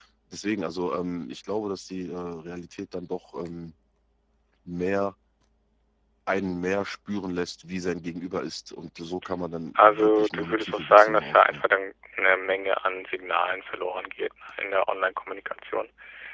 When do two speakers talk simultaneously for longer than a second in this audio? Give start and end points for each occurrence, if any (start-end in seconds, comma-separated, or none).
9.8-11.6